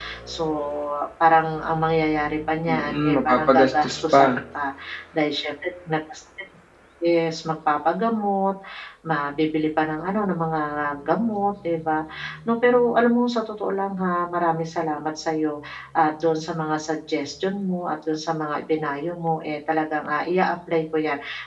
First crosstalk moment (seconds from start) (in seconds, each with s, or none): 2.7 s